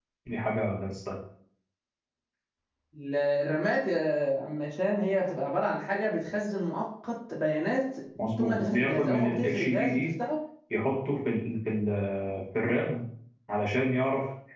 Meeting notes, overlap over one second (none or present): present